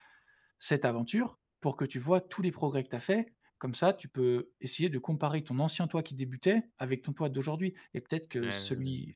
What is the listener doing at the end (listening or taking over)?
listening